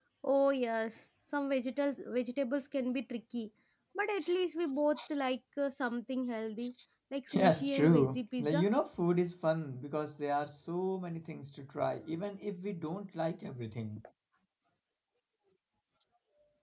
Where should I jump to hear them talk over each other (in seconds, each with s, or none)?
7.3 s